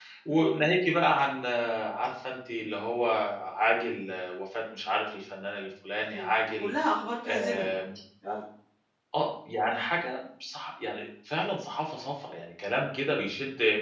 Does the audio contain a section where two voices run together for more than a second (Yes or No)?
No